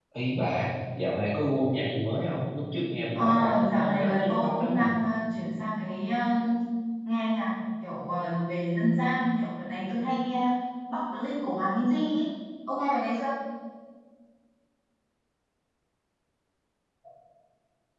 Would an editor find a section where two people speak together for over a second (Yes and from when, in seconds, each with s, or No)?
Yes, from 3.2 s